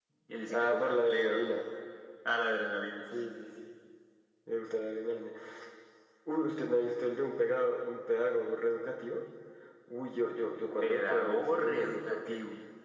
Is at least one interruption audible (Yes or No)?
Yes